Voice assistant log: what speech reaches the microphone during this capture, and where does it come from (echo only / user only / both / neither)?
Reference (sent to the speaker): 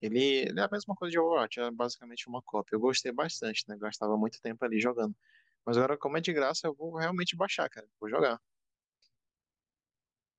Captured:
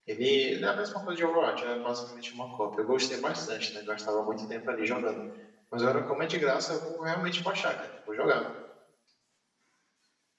echo only